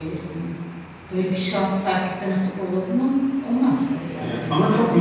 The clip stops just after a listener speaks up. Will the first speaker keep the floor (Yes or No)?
No